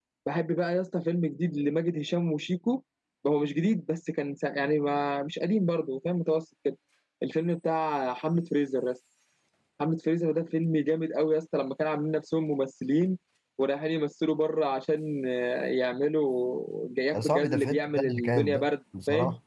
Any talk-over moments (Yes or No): Yes